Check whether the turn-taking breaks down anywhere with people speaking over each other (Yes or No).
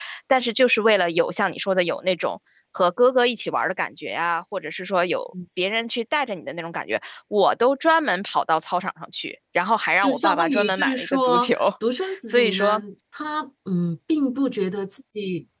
Yes